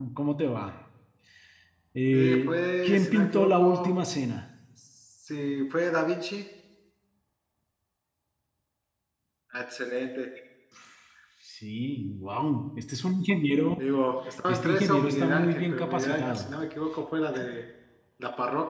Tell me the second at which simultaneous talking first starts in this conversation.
2 s

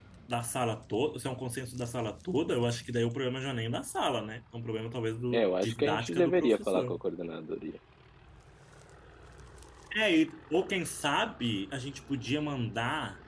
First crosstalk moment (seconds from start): 5 s

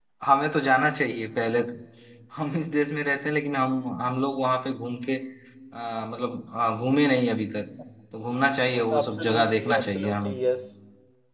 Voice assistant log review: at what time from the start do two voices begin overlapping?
9 s

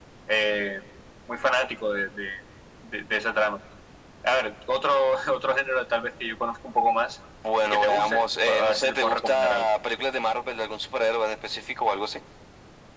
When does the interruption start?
8 s

